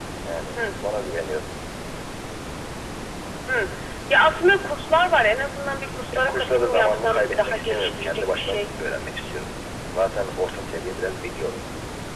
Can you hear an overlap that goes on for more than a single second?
Yes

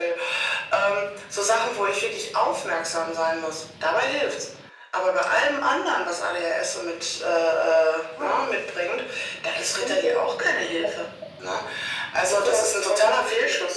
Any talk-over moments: Yes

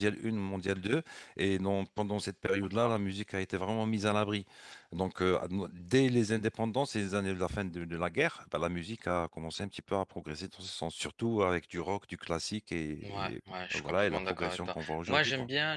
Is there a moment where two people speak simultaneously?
Yes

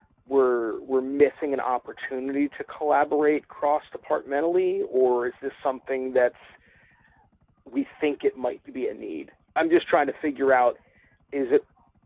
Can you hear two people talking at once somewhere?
No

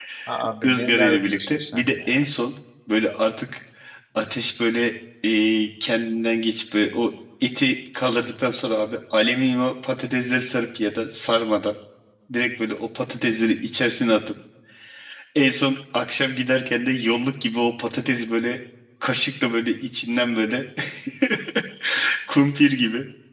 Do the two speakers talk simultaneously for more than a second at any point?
Yes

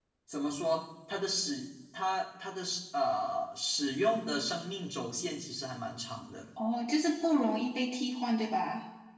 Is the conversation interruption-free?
Yes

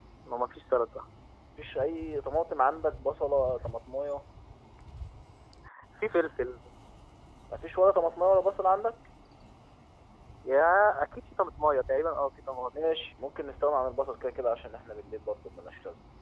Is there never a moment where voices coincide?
Yes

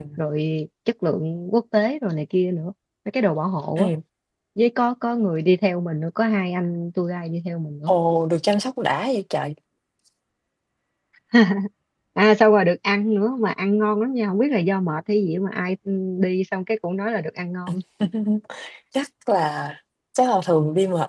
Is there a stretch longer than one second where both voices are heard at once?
No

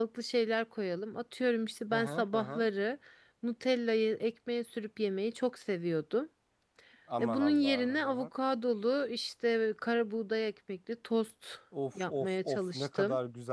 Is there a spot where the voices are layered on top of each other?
Yes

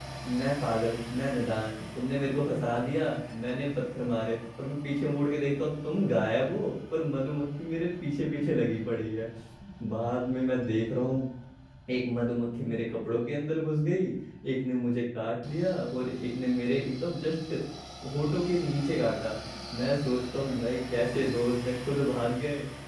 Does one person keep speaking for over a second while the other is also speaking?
No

